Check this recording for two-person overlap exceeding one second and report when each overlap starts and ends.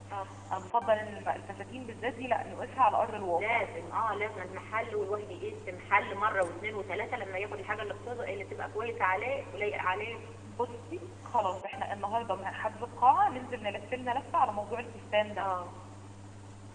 none

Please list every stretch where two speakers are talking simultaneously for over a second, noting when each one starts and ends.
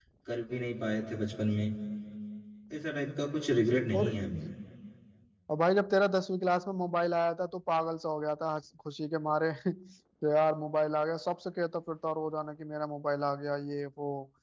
none

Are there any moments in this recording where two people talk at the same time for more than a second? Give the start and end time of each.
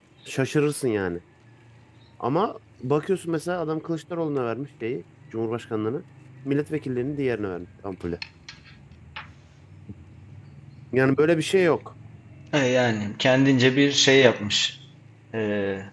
none

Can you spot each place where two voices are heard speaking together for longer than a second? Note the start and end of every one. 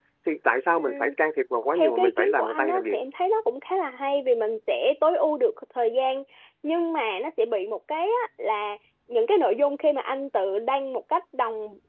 1.8-3.0

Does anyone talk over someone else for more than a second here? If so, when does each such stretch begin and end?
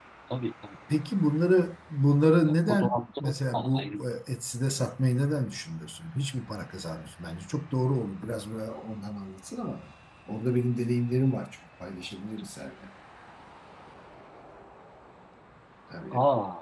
2.4-3.9

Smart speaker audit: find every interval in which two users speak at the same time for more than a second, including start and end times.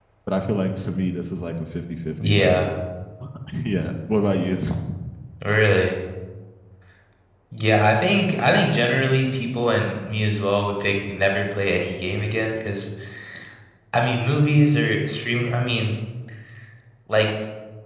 none

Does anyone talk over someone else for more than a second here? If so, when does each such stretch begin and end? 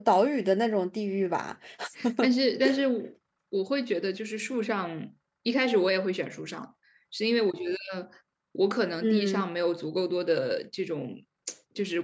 none

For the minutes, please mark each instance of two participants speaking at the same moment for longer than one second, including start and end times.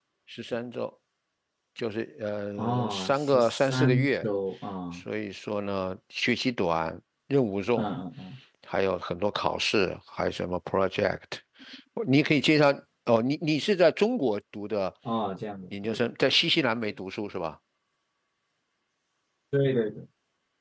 2.6-4.2

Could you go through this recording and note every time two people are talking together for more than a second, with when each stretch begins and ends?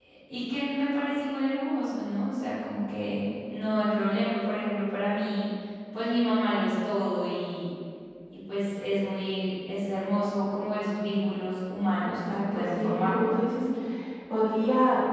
12.0-13.4

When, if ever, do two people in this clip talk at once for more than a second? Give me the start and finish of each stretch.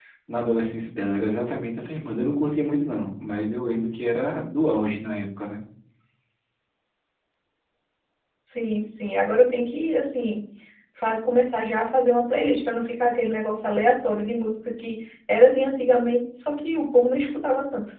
none

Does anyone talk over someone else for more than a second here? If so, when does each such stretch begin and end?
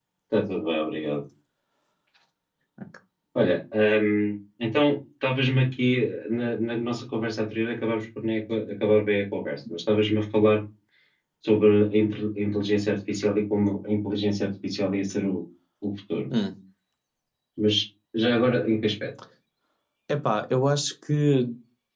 none

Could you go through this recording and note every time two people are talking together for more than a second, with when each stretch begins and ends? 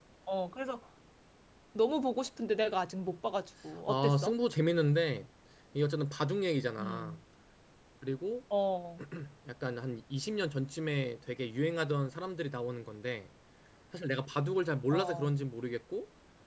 none

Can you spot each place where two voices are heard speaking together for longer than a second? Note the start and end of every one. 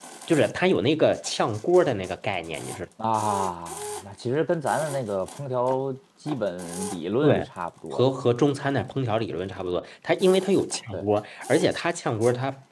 none

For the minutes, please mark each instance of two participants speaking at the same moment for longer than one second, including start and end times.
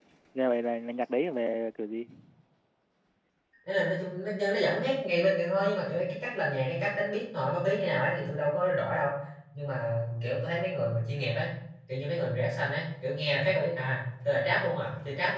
none

